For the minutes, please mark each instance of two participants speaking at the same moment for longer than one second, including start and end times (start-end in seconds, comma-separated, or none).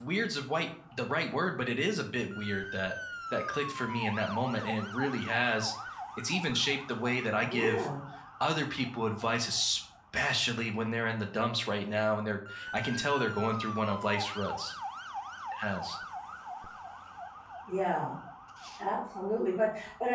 none